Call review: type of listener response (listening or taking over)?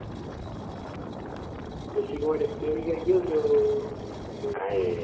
taking over